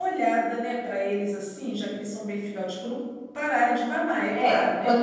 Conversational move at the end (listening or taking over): taking over